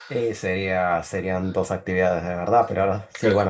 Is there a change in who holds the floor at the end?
No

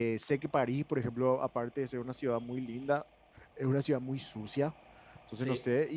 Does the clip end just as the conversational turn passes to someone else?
No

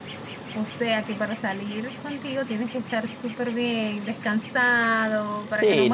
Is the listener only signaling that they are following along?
No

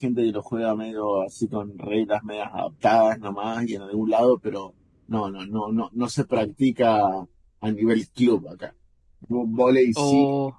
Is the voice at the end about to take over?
No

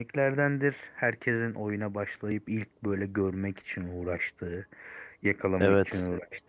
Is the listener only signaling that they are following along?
Yes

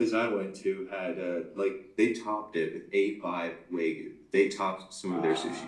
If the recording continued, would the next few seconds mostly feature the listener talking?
No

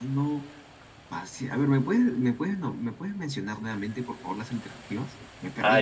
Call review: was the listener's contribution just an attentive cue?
No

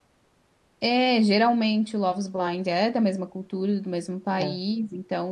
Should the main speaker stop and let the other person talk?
No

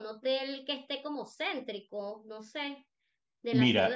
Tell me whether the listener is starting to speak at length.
Yes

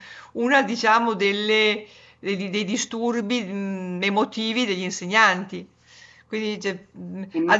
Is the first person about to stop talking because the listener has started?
No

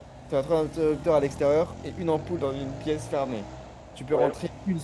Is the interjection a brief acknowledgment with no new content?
Yes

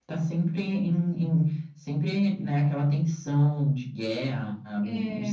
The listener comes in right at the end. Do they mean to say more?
No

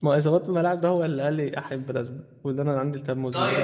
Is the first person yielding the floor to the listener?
Yes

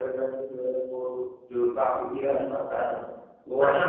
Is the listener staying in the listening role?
No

